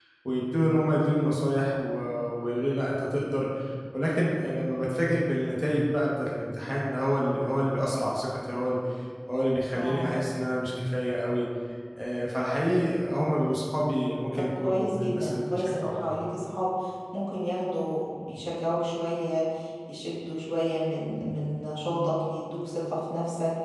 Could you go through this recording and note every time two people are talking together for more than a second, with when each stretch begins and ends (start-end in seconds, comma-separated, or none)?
14.3-16.2